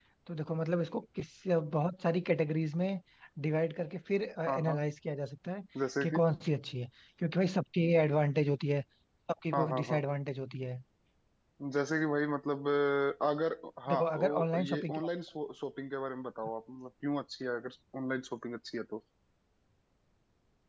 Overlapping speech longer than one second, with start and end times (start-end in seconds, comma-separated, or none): 13.9-15.1